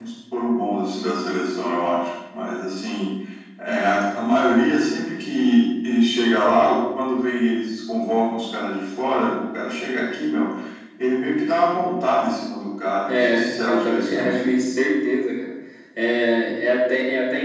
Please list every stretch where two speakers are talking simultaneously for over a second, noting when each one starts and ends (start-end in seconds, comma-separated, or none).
13.1-14.4